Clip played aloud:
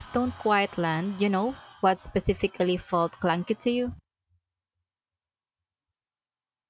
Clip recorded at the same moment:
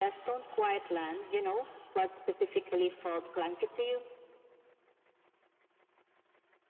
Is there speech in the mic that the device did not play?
No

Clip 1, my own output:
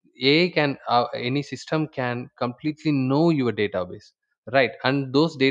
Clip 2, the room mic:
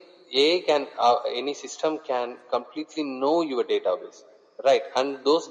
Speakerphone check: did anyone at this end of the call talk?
No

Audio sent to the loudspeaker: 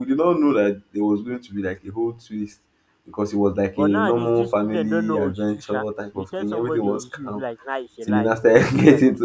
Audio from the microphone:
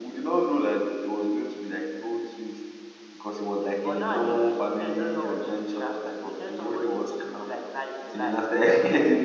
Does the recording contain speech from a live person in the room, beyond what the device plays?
No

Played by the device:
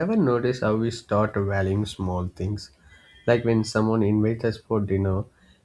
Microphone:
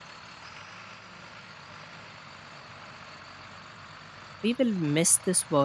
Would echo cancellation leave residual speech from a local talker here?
Yes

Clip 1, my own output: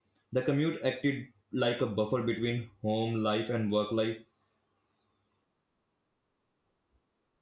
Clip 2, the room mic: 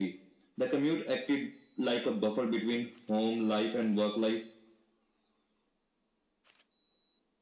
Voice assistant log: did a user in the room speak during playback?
No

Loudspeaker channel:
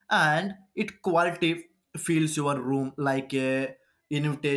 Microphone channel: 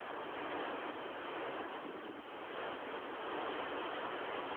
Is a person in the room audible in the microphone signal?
No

